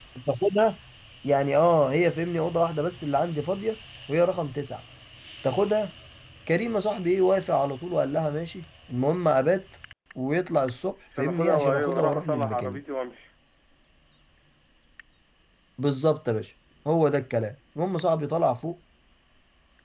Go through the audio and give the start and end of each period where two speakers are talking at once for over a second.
11.2-12.8

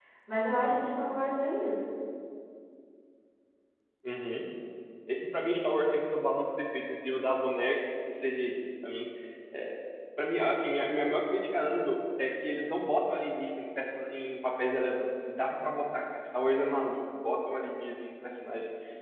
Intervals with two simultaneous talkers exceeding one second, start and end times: none

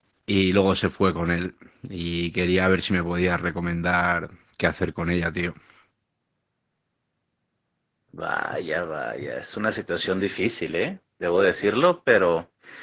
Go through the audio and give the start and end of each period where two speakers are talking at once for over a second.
none

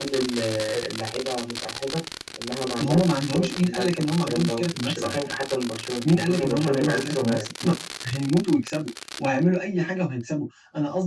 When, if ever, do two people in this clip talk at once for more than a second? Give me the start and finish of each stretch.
2.8-5.2, 6.0-7.5

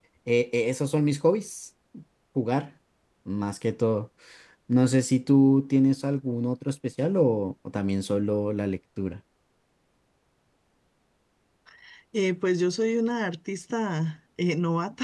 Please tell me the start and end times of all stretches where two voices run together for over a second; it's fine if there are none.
none

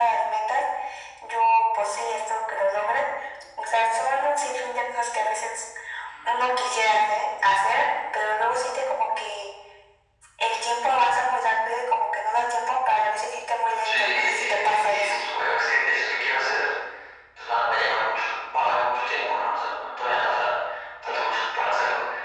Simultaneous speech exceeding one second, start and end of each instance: 13.8-15.2

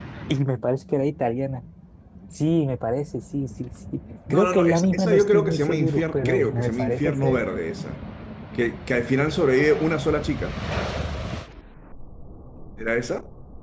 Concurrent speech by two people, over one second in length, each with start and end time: 4.3-7.4

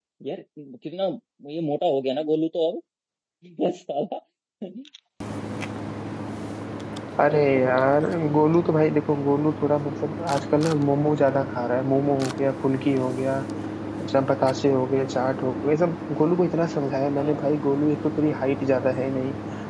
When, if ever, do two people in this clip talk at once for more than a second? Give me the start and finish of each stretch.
none

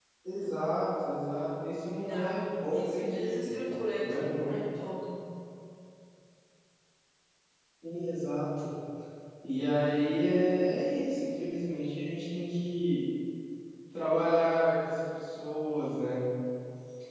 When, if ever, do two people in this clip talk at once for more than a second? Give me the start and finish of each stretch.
2.0-3.6

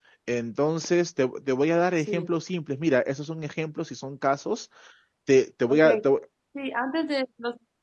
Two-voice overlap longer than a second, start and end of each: none

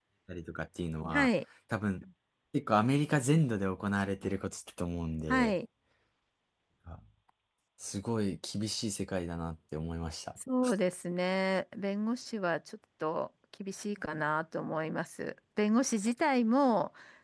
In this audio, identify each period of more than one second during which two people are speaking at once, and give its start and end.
none

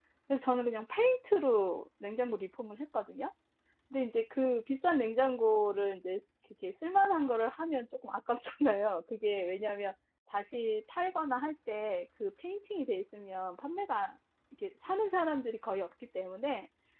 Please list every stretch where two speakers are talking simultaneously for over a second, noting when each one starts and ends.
none

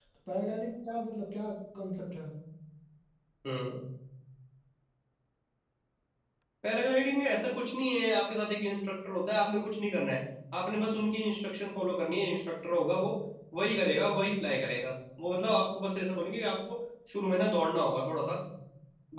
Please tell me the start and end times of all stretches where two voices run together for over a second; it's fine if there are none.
none

